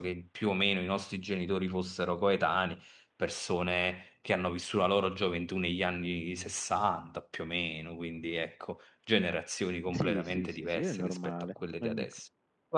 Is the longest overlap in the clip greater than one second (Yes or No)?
Yes